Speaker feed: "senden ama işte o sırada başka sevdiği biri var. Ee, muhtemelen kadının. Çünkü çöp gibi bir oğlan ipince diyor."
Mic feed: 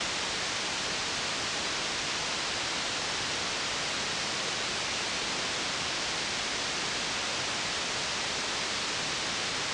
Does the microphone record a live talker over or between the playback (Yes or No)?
No